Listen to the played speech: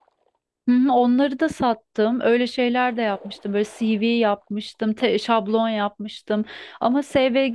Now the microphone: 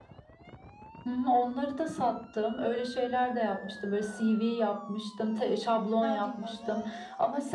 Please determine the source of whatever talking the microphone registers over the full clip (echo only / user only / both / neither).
both